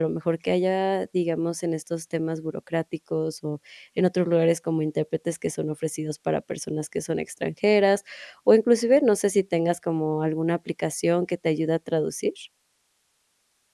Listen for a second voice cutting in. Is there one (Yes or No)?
No